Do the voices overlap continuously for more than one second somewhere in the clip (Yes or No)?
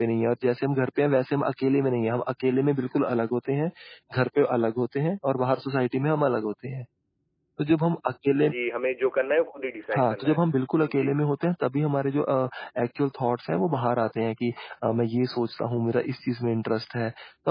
No